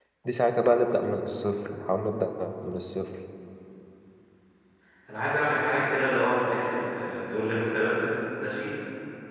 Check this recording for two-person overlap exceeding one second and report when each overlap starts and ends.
none

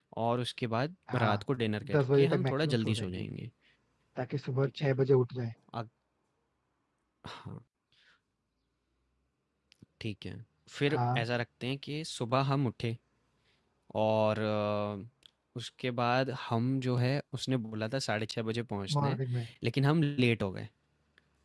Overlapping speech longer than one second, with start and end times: 1.9-3.3

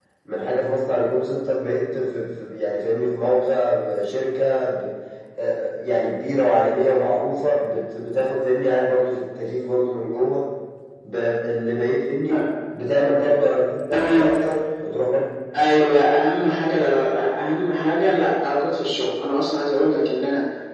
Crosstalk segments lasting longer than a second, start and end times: none

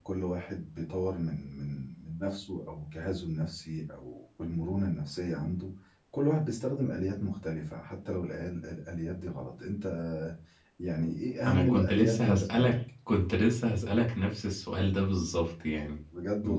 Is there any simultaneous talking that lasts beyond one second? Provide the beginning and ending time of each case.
11.5-12.8

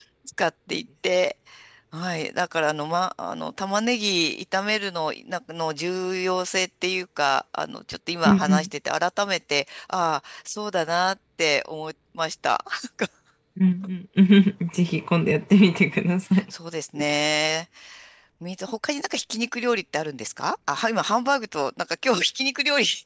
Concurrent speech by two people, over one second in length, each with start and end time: none

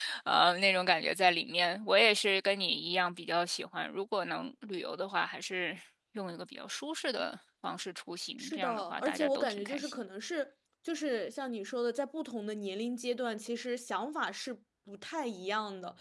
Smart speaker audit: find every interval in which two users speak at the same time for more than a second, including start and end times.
8.4-10.0

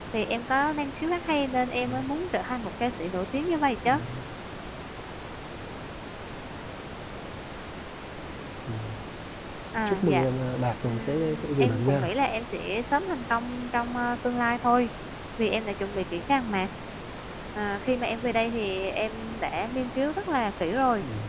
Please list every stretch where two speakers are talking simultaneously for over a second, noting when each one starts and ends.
10.8-12.1

